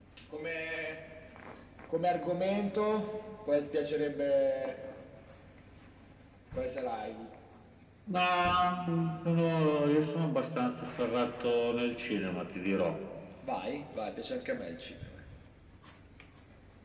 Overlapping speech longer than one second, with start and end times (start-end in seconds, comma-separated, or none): none